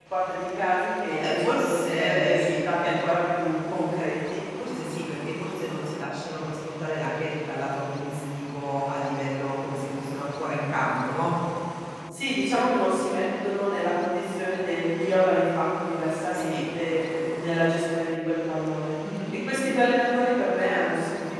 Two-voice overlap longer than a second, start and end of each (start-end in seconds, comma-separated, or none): 1.1-2.6